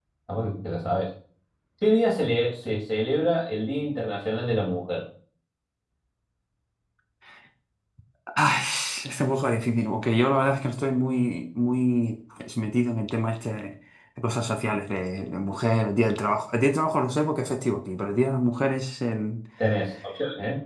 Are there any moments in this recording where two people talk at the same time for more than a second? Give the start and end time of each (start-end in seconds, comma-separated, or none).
none